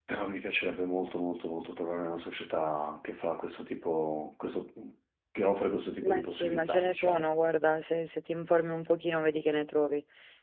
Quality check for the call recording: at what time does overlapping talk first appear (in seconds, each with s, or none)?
6.0 s